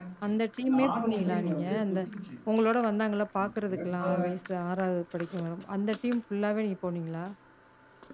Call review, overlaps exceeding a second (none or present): present